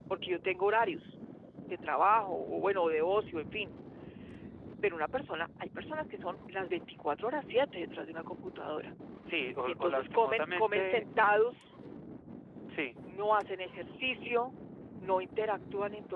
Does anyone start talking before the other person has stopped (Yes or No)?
Yes